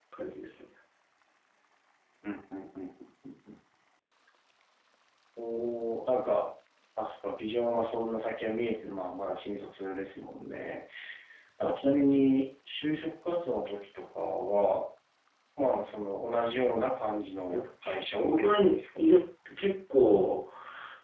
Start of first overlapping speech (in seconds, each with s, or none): 17.5 s